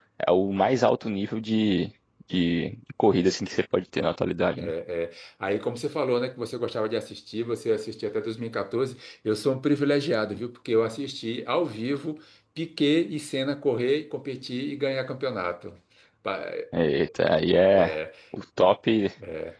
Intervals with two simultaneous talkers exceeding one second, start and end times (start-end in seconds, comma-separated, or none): none